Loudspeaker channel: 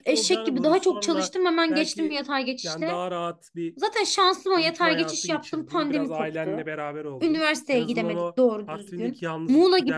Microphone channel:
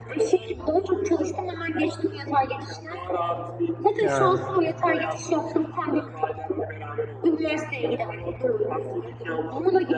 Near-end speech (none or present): present